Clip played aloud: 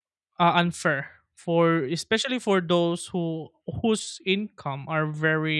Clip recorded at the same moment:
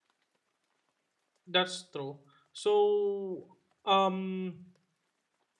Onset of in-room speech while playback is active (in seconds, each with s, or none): 1.5 s